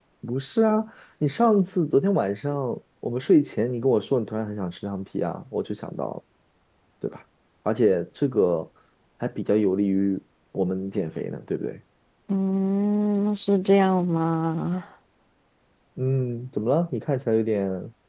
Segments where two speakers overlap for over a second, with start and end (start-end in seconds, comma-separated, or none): none